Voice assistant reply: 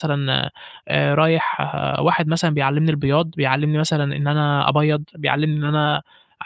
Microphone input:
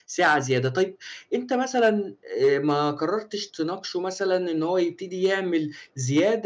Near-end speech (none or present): present